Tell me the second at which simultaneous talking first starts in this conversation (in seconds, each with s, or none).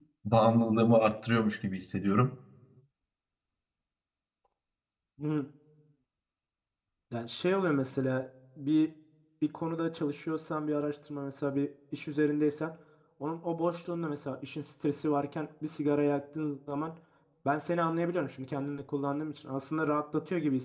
none